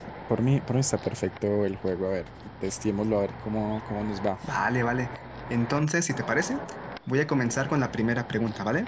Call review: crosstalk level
none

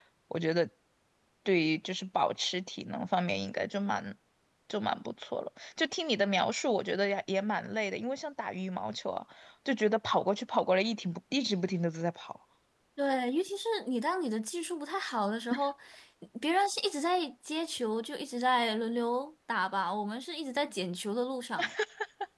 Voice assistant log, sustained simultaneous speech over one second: none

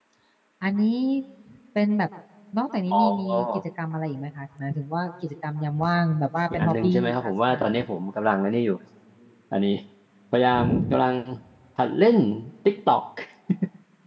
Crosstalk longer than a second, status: present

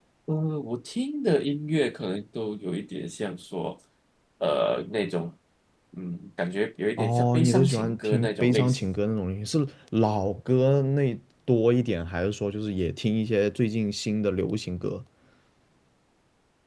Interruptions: present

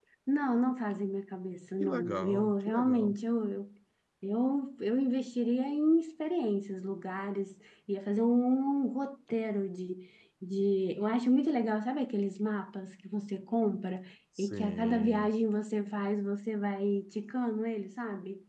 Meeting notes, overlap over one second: present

